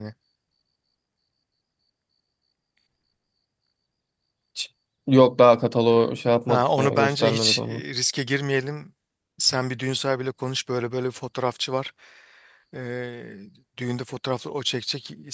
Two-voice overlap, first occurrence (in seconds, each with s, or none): 6.5 s